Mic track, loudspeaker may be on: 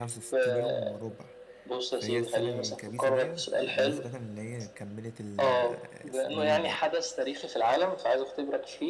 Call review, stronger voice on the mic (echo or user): echo